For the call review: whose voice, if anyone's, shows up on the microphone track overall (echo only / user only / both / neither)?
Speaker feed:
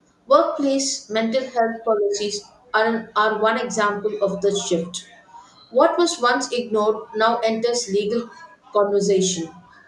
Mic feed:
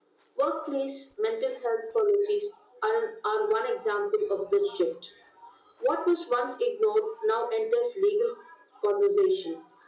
echo only